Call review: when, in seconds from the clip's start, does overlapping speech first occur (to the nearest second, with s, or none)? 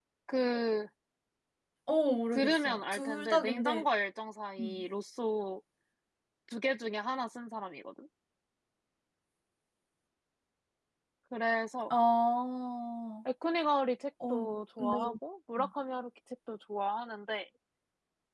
2 s